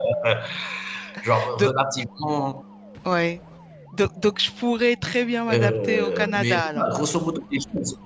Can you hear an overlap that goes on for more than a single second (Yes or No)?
Yes